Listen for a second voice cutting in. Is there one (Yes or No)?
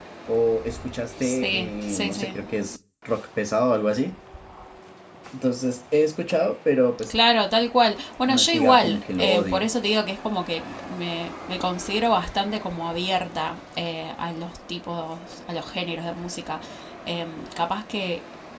Yes